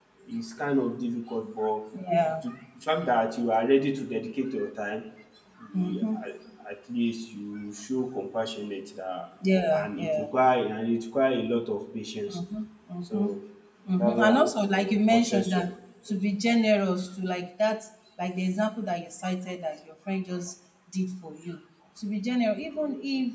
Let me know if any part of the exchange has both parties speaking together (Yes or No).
Yes